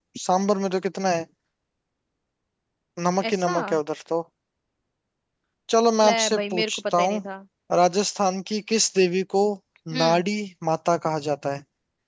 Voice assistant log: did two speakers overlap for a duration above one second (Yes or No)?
Yes